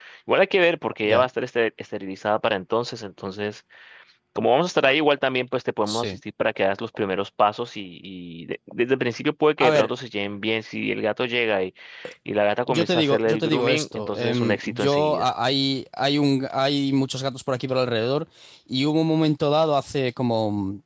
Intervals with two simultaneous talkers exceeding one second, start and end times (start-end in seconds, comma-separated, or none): 12.7-15.3